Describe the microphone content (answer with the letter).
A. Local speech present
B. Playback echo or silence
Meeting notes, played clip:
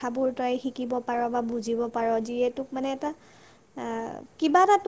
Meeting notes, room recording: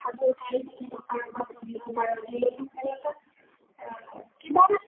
B